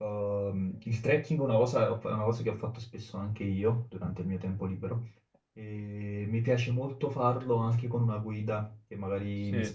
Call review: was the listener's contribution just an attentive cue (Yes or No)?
Yes